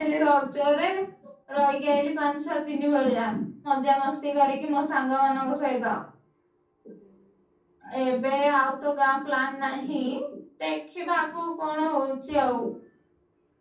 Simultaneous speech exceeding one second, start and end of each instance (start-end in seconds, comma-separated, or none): none